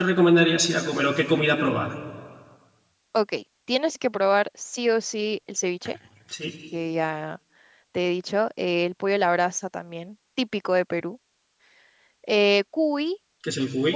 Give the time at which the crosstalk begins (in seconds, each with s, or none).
none